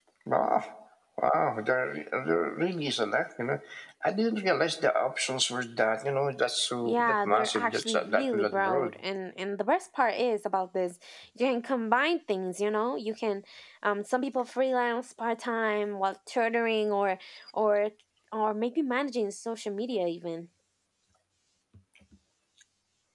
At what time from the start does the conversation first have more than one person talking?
6.8 s

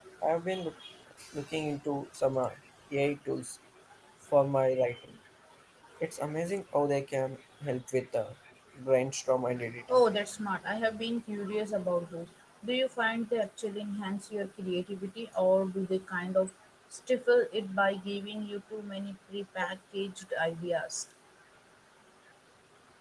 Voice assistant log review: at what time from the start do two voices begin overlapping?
none

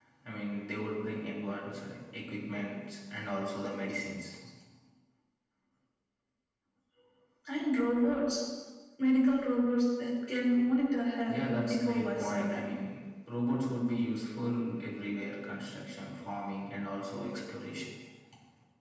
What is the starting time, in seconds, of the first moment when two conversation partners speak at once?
11.3 s

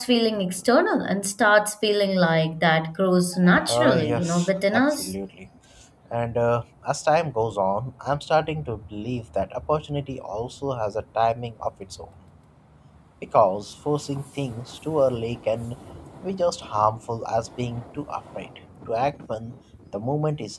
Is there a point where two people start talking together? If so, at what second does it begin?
3.7 s

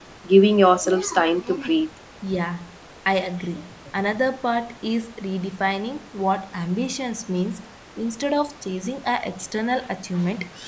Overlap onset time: none

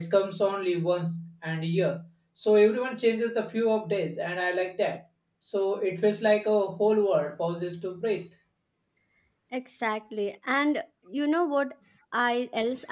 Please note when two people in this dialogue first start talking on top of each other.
none

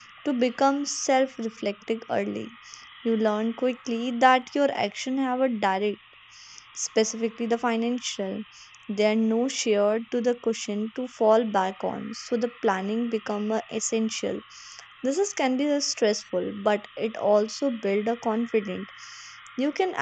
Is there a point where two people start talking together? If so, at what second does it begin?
none

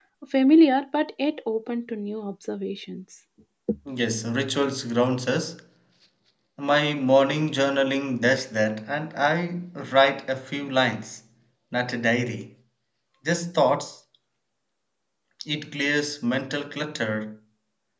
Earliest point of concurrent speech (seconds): none

